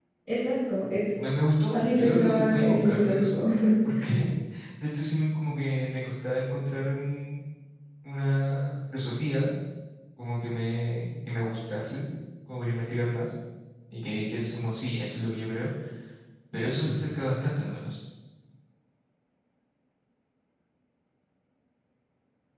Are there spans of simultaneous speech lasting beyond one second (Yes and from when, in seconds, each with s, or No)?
Yes, from 1.7 s